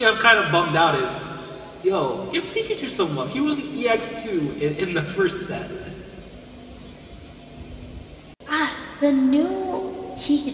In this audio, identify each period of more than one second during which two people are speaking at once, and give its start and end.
none

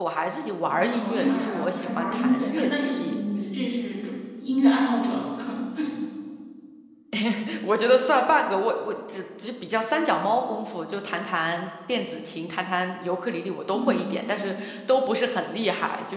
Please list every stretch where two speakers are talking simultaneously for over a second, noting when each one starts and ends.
0.7-3.2

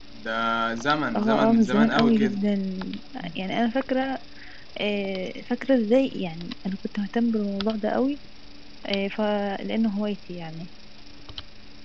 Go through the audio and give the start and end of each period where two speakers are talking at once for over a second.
1.1-2.4

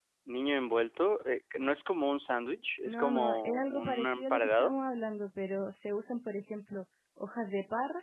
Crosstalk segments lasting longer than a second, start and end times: 2.9-4.7

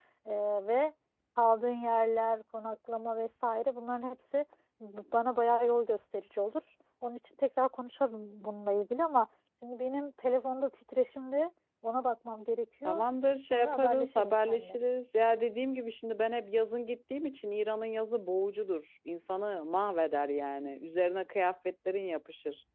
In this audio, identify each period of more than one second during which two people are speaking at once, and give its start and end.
13.5-14.8

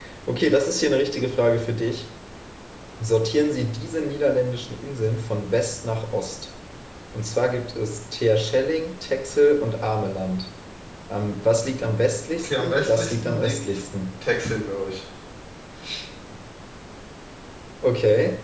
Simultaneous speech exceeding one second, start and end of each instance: 12.4-13.8

